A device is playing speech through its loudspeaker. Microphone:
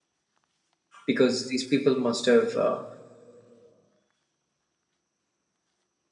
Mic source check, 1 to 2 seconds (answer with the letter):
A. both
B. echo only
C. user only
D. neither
C